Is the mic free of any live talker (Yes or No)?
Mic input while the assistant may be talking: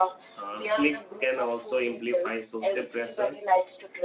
No